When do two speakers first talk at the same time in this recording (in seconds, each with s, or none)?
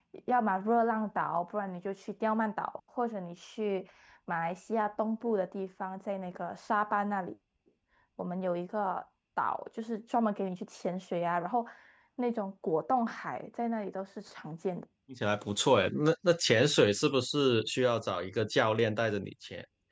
none